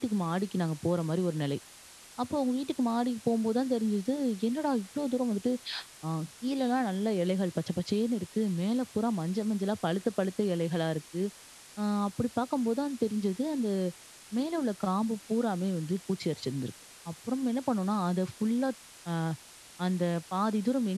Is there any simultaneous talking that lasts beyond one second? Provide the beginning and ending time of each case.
none

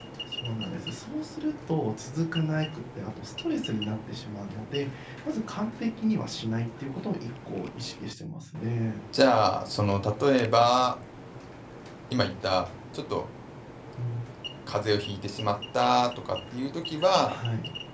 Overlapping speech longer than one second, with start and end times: none

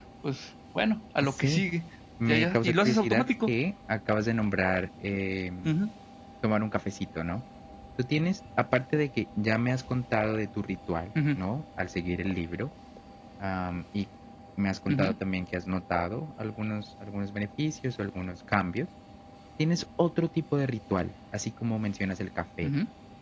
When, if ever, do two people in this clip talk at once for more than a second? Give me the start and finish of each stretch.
2.3-3.5

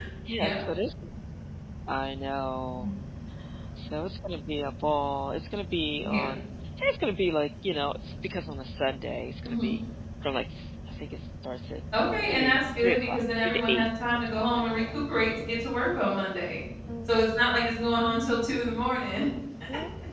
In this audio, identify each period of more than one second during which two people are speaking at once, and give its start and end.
12.3-15.0

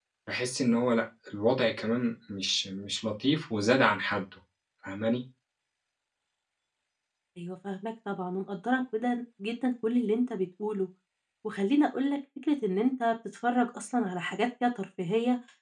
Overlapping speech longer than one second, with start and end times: none

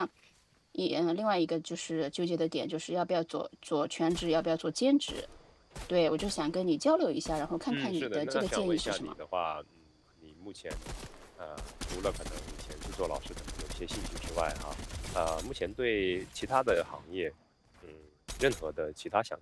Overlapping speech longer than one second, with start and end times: 7.7-9.1

